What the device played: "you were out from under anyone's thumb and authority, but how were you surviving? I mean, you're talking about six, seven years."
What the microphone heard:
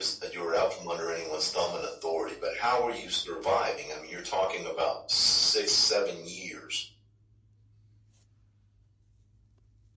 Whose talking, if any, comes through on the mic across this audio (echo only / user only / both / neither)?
echo only